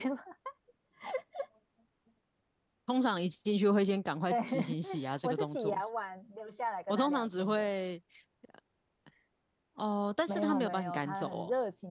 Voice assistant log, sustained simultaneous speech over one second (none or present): present